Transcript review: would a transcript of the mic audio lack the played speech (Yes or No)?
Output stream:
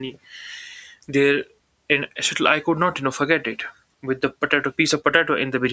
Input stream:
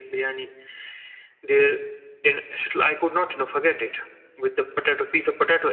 No